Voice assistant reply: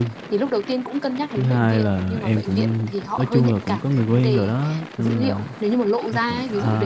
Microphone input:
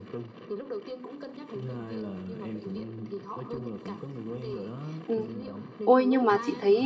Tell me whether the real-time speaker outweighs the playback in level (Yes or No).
Yes